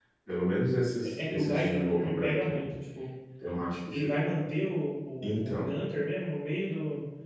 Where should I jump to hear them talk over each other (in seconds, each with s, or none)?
1.0 s